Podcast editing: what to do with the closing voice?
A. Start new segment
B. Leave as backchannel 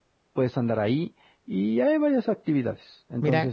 B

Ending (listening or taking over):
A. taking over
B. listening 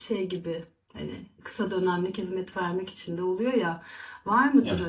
B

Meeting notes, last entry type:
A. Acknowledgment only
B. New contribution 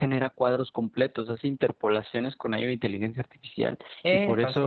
A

